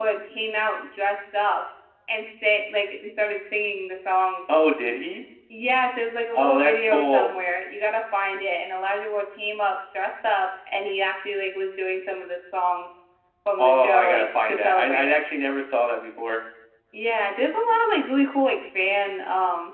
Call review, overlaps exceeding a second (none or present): present